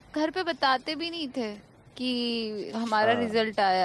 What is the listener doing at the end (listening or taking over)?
listening